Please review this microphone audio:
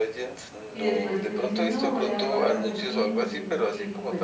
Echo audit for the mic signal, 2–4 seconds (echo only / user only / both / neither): both